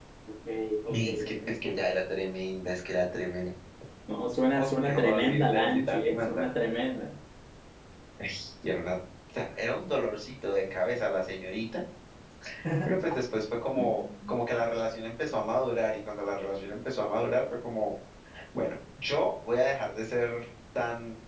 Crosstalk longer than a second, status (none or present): present